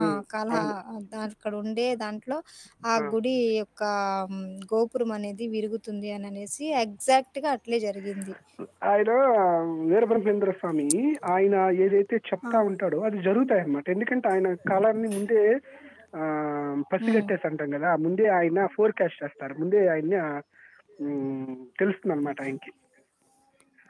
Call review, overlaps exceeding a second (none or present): none